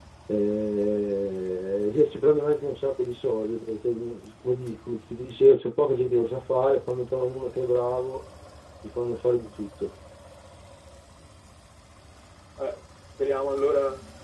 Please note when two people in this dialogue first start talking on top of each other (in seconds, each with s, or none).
none